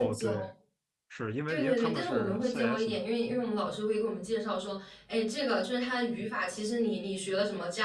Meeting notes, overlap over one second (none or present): present